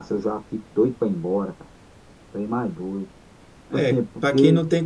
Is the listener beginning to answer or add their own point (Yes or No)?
Yes